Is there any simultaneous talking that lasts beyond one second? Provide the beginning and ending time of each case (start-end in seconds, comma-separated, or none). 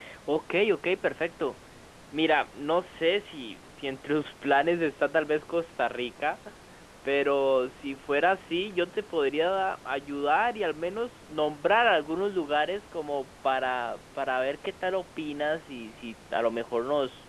none